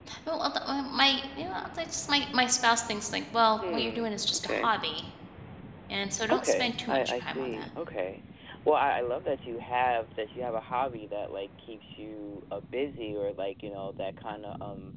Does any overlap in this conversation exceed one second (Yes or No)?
Yes